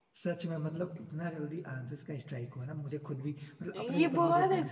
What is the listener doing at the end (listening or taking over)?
taking over